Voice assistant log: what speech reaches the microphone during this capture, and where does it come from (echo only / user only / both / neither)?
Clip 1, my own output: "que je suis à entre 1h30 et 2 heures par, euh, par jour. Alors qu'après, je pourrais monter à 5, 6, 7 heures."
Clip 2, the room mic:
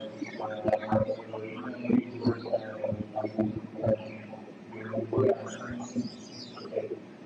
echo only